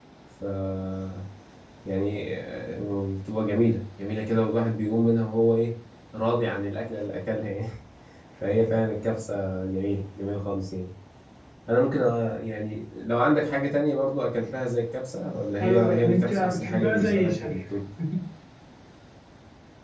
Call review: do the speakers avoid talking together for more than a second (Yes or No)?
No